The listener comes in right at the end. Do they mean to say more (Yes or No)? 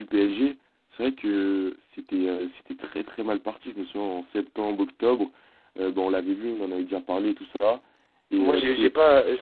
Yes